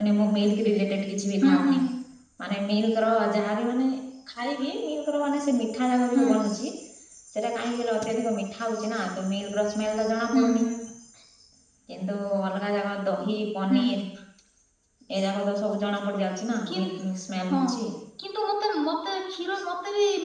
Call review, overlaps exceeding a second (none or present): none